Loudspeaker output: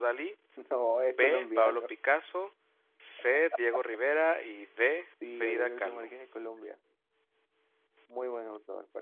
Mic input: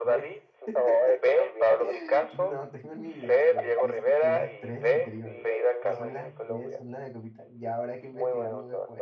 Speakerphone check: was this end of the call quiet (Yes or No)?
No